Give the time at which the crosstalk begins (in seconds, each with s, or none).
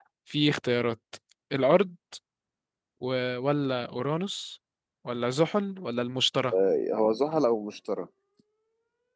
none